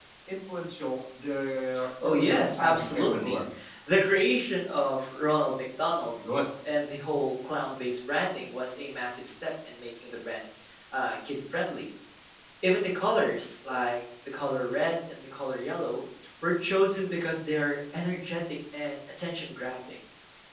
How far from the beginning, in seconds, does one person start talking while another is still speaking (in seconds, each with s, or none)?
2.0 s